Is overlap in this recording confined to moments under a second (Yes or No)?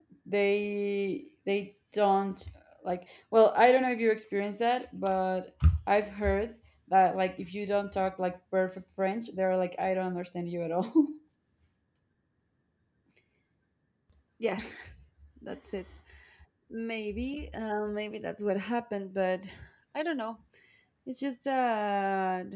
Yes